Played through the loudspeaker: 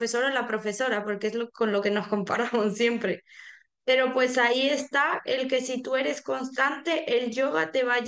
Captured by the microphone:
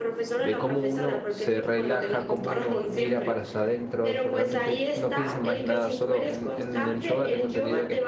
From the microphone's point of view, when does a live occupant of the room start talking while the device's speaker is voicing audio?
0.4 s

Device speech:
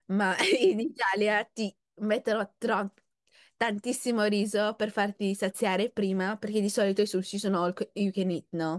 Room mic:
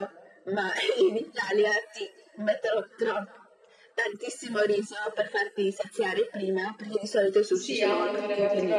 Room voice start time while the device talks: 7.5 s

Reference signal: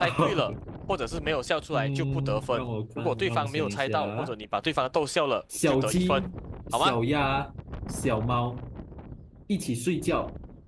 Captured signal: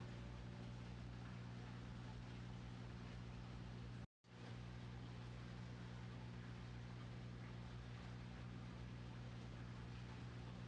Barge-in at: none

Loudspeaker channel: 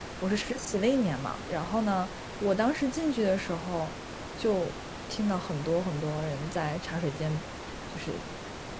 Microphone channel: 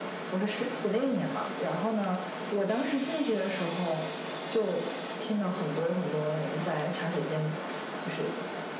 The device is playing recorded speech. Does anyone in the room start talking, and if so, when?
none

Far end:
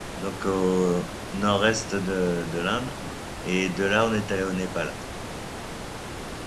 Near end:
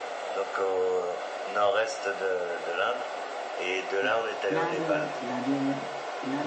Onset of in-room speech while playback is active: 4.0 s

